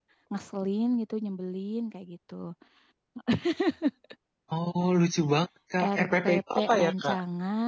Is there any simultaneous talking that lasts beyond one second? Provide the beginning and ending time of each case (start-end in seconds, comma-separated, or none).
6.0-7.2